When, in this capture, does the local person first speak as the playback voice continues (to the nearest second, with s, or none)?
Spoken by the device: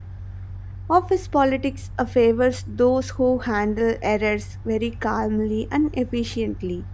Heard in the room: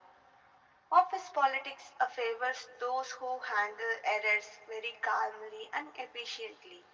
none